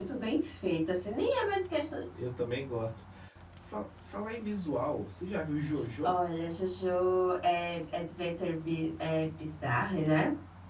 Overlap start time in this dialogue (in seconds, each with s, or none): none